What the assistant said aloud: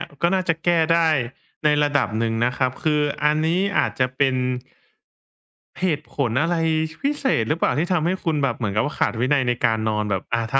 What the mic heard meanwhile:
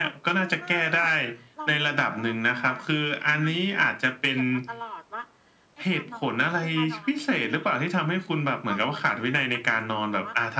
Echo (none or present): present